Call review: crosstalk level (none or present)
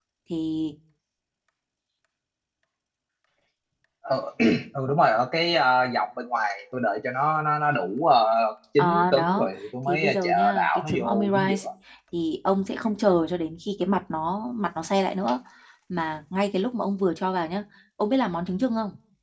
present